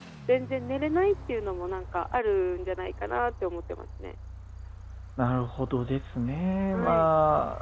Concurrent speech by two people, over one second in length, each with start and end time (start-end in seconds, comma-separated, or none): none